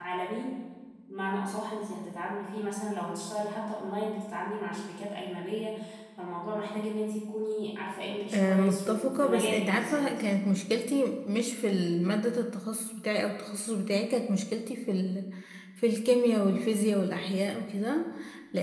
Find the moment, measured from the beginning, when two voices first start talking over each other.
8.3 s

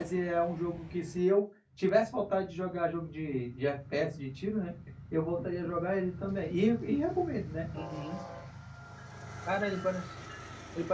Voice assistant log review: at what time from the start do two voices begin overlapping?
none

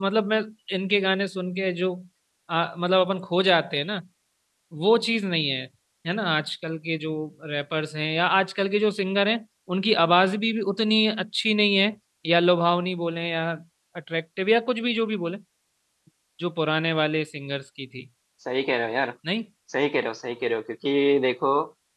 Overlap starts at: none

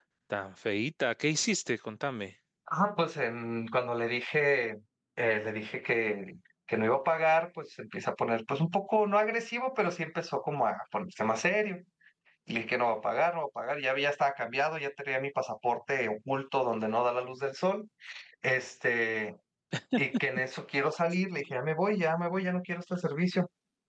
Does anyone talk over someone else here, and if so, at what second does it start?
none

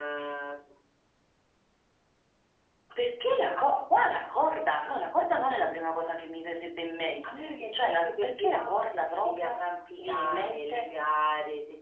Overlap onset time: 7.2 s

